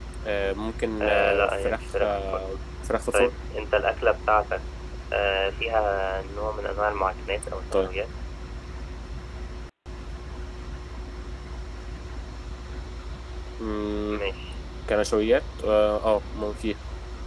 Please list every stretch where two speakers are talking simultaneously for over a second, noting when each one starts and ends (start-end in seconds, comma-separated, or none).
1.0-2.4